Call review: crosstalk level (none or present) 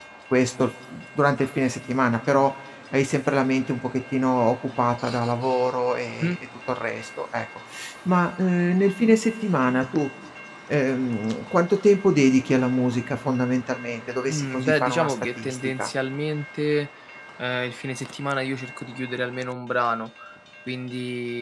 present